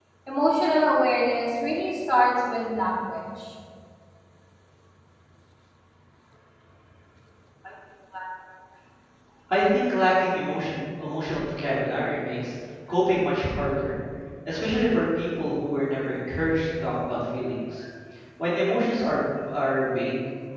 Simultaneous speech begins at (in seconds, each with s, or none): none